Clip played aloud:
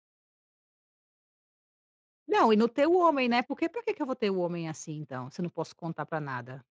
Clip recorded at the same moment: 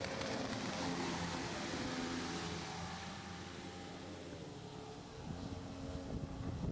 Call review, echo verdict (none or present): none